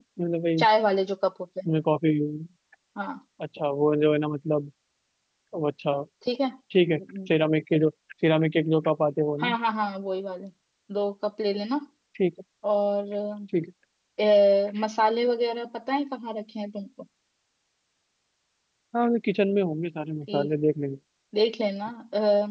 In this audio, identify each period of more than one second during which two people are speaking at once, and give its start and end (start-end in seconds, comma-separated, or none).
none